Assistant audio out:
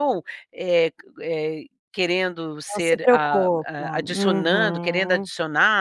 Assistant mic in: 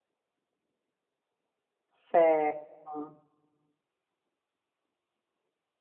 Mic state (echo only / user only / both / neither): user only